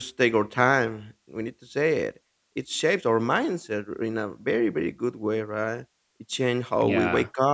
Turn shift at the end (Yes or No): No